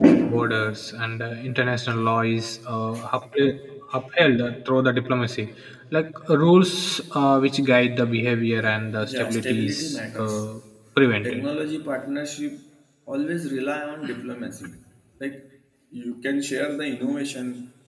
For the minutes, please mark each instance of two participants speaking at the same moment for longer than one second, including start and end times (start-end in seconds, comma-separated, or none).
9.0-10.5